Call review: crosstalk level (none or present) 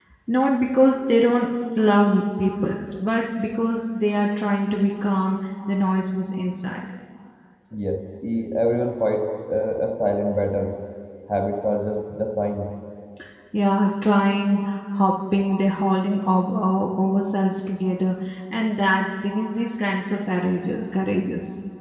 none